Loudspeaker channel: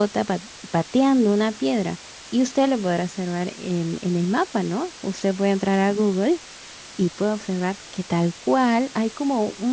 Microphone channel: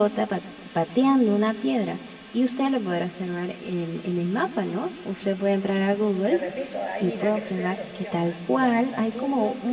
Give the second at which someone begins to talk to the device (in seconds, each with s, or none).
6.3 s